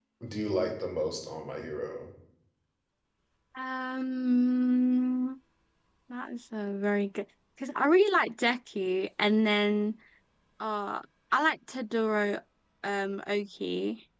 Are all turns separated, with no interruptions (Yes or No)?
Yes